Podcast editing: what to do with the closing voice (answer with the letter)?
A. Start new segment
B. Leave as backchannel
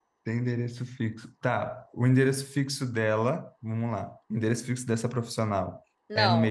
A